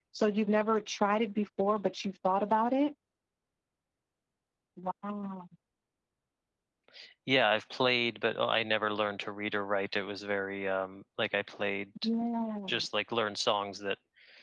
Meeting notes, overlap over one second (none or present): none